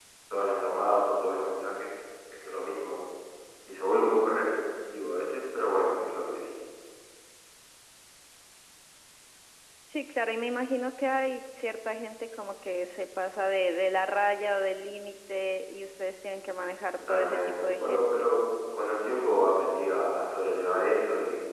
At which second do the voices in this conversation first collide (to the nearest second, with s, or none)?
17 s